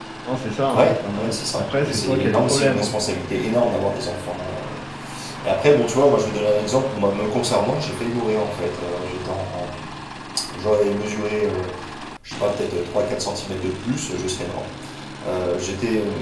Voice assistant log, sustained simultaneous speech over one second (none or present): present